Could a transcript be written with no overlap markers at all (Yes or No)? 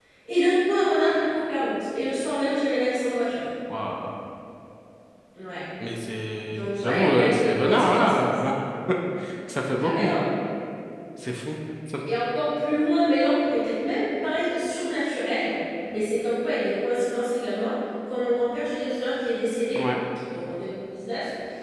No